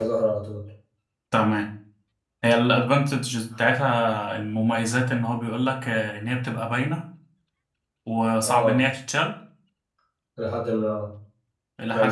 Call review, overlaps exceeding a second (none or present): none